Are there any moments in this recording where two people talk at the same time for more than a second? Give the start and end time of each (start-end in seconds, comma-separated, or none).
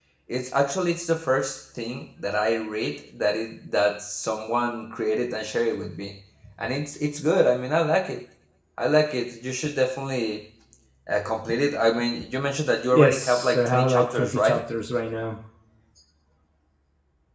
12.9-14.6